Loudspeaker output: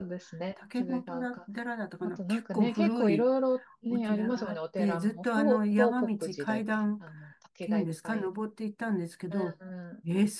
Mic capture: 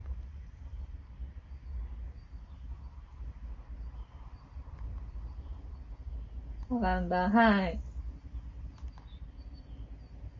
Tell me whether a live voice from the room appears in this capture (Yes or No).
Yes